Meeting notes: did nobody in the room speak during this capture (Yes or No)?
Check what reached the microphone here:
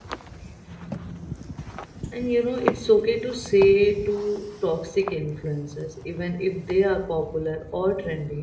No